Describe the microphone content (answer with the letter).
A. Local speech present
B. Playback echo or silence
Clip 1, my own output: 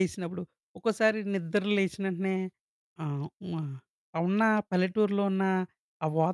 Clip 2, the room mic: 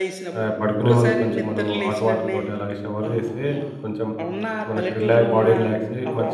A